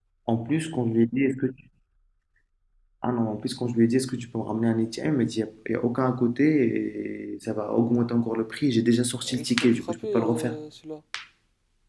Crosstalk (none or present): present